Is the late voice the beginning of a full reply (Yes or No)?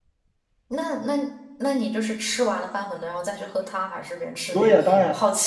Yes